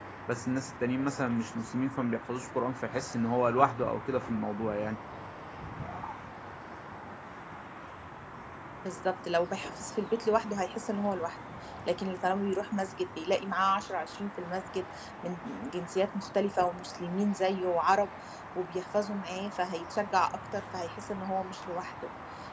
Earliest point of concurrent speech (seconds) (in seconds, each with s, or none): none